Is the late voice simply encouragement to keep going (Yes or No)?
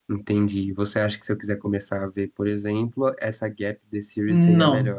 No